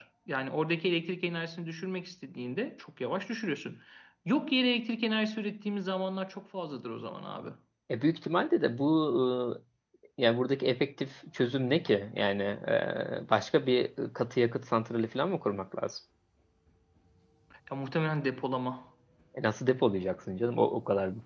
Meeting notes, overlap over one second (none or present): none